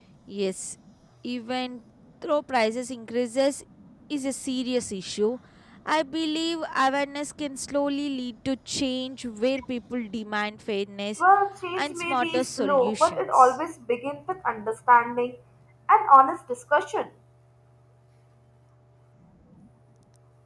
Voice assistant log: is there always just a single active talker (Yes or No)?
No